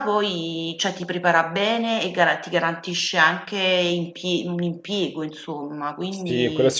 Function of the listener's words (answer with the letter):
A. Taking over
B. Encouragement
A